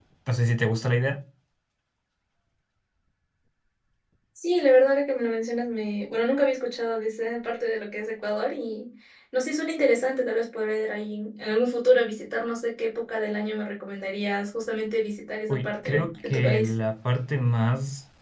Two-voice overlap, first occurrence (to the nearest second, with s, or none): 15 s